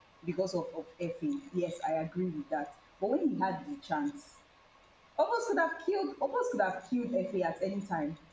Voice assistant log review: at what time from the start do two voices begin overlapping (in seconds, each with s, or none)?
none